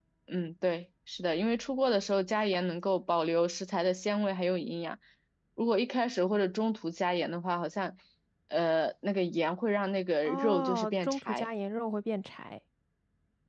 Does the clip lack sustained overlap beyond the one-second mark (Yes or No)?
No